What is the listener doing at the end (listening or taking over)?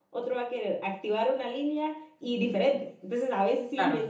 listening